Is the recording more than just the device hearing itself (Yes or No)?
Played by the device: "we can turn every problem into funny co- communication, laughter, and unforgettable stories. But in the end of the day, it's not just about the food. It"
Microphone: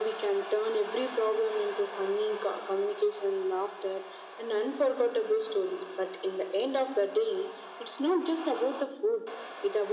No